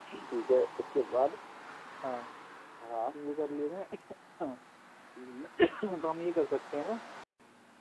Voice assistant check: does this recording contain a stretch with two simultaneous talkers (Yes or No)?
No